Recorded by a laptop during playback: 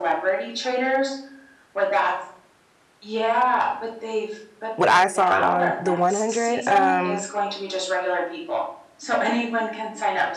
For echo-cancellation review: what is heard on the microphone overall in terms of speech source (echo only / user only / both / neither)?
both